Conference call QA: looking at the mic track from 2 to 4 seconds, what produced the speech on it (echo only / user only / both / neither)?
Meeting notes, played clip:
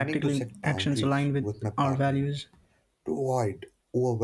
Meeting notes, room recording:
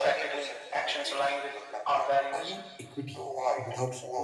both